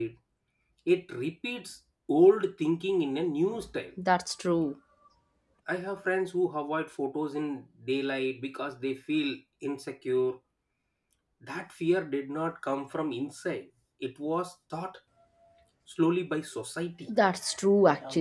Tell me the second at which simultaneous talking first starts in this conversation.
none

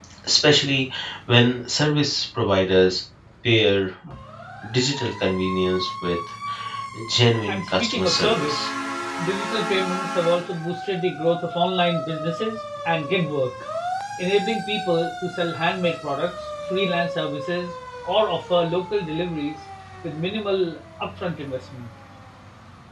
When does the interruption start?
7 s

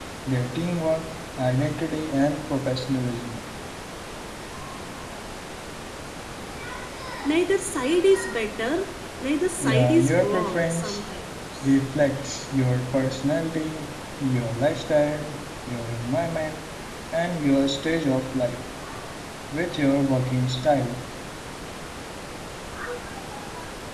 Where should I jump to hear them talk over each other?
10 s

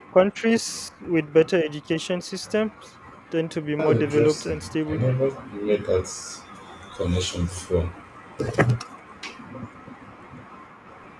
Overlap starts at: 4 s

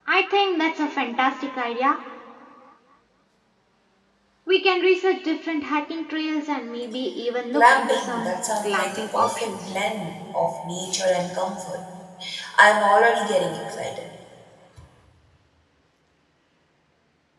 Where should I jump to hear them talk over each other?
8 s

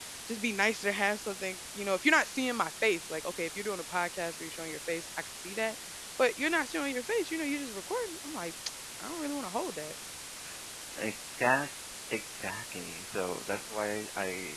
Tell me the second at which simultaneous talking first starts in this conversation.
none

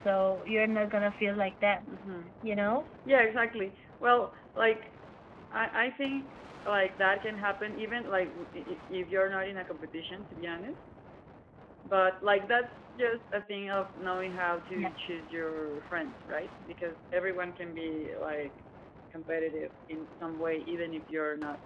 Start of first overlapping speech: none

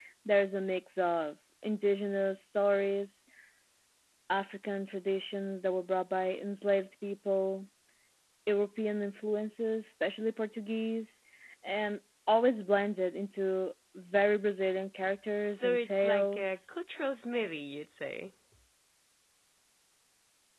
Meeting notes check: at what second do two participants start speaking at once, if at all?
16 s

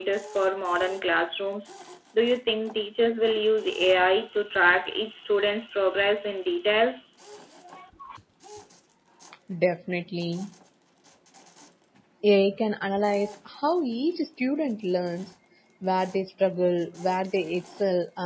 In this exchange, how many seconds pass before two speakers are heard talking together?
none

